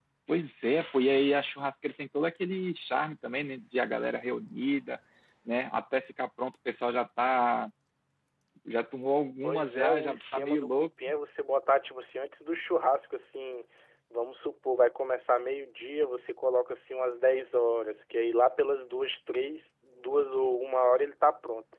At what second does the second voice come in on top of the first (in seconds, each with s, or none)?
9.4 s